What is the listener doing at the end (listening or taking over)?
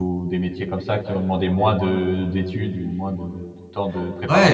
taking over